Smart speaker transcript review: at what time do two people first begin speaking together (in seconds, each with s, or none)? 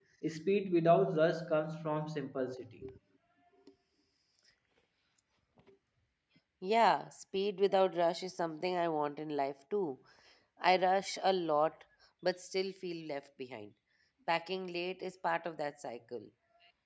none